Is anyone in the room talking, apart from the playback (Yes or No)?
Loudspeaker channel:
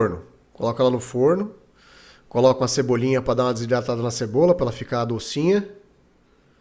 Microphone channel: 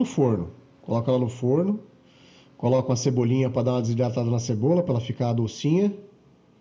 No